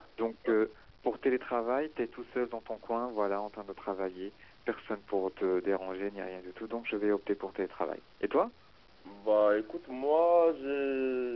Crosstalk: none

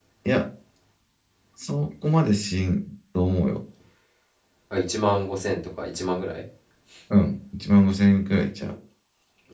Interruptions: none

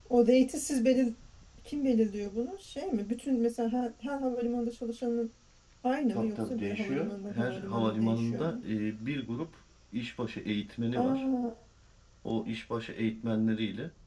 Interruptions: present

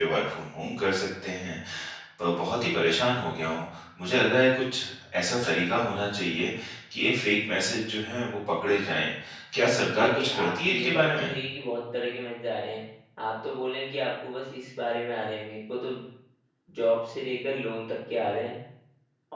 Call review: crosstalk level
present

